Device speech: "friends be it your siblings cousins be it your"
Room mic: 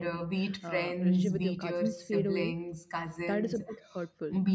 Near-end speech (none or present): present